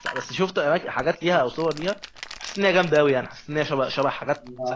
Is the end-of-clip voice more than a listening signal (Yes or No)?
Yes